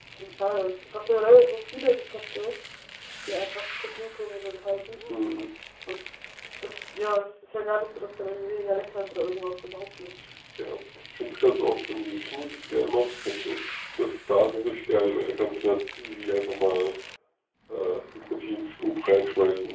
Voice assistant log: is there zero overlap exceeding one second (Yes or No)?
Yes